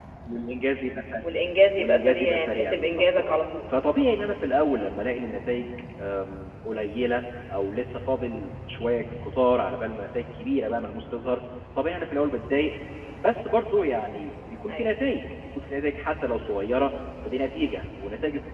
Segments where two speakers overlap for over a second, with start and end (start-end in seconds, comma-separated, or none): 1.8-3.4